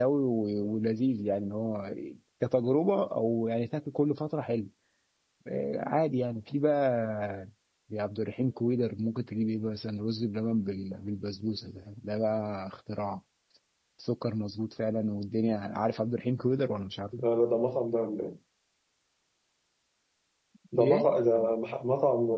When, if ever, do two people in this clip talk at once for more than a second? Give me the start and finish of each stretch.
none

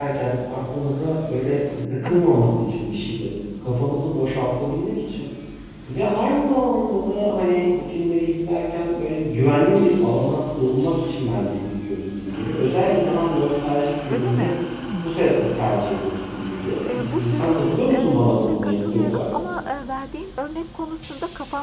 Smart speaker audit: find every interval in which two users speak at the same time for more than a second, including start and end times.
16.9-19.2

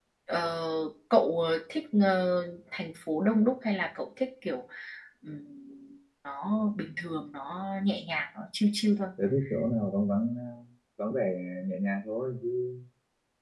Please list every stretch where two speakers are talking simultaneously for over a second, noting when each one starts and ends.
none

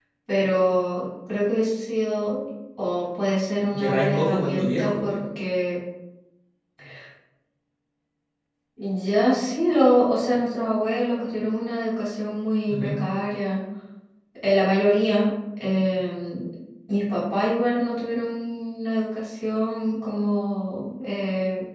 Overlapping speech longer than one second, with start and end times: 3.7-5.2

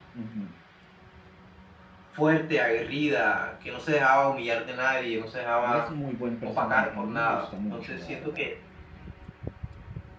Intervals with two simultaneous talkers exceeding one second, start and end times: 6.4-8.5

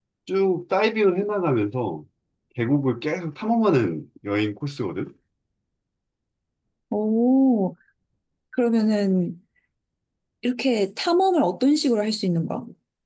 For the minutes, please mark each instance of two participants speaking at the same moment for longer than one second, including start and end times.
none

